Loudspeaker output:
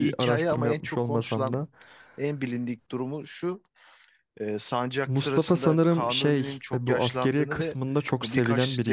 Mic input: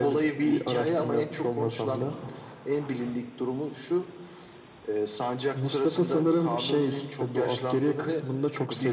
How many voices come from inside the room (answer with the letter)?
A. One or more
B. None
B